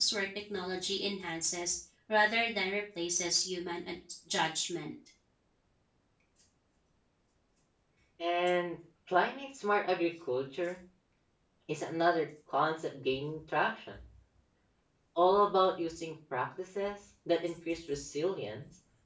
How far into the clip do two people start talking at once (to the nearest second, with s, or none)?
none